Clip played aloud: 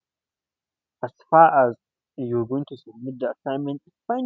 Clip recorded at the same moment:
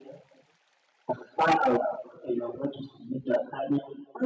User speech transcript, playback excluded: none

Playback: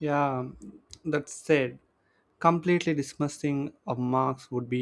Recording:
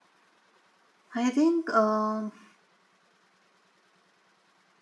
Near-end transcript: I think, um,

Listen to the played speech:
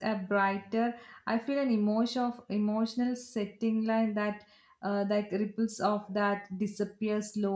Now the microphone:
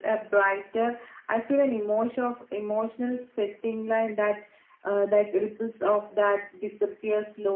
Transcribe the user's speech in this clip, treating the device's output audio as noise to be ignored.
none

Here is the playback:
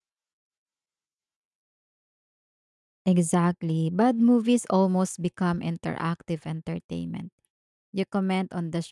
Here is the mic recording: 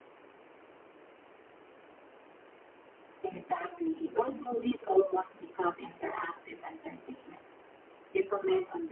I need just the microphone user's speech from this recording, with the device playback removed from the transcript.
none

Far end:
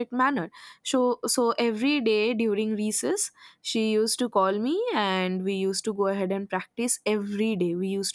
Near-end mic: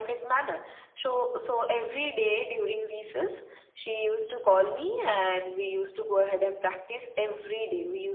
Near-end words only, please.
none

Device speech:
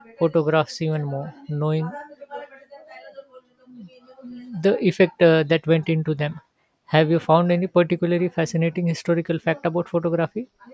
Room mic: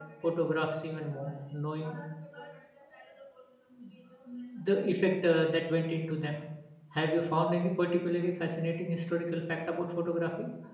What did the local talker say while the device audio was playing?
none

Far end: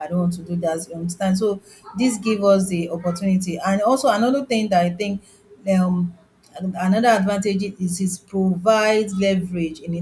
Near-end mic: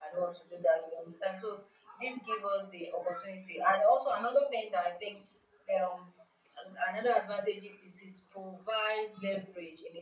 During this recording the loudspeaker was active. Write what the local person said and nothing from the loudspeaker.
none

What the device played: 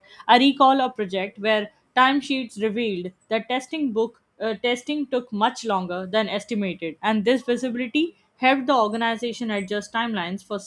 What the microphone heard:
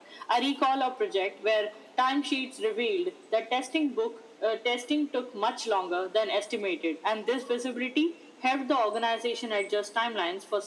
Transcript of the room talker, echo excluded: none

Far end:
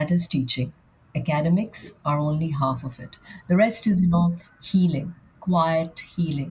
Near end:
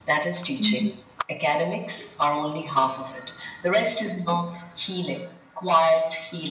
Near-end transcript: Mhm.

